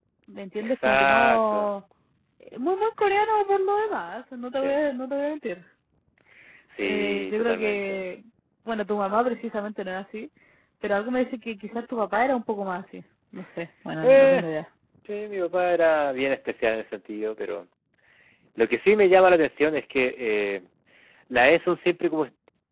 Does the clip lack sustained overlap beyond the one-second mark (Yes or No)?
No